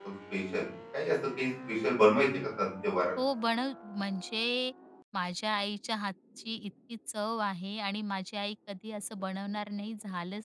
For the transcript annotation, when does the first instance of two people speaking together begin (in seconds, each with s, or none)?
none